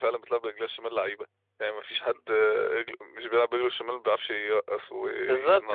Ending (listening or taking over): taking over